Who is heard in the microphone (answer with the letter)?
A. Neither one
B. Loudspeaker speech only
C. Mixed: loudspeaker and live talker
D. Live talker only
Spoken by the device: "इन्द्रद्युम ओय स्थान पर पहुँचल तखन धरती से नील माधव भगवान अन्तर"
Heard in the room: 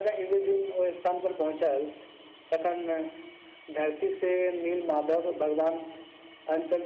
B